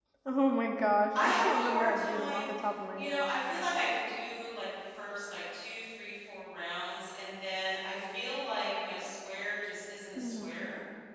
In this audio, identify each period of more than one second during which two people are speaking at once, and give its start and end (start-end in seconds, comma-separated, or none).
1.1-2.5